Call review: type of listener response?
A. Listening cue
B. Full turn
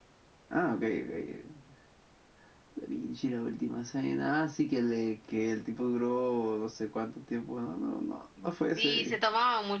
B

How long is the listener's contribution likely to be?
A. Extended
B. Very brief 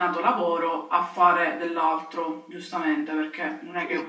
A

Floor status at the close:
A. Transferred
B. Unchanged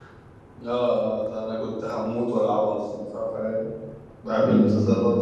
A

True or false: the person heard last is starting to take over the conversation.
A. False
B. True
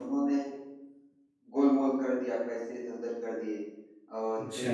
A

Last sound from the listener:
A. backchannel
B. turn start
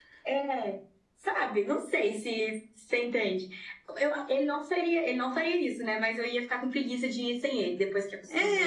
B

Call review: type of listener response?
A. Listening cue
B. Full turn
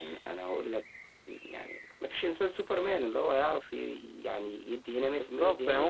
B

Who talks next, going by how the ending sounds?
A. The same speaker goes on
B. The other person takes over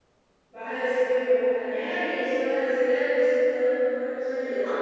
B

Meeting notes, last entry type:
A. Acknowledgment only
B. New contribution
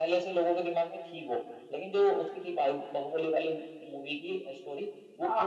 B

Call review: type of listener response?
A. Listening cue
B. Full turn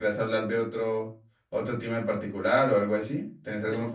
B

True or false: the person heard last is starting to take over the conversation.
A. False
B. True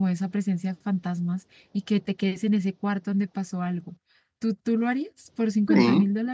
B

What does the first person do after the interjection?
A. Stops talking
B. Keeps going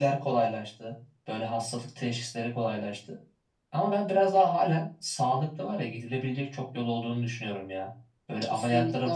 B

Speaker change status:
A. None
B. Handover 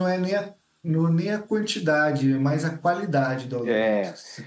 B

